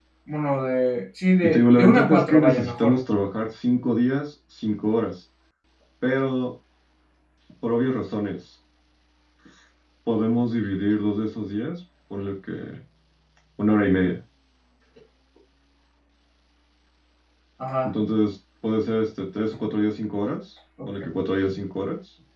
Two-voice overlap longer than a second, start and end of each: 1.4-3.0

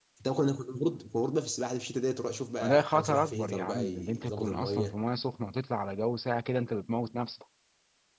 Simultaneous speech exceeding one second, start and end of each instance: 2.6-5.0

